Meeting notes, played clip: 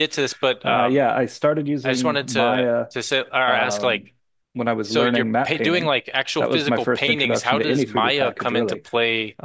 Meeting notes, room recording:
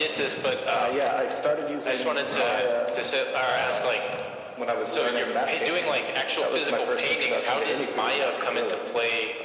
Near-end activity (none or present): present